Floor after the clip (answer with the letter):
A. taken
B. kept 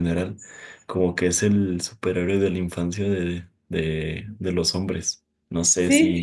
A